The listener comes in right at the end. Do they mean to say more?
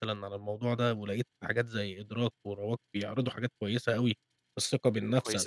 No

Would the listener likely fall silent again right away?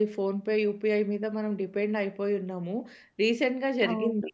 Yes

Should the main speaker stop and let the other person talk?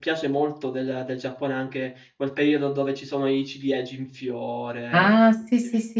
Yes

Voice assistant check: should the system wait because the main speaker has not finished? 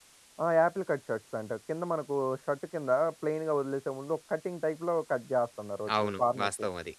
No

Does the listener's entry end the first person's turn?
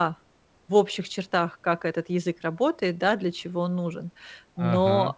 No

